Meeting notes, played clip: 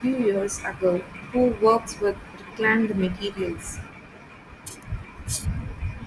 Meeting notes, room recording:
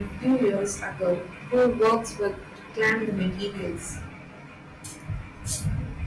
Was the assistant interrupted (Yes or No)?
No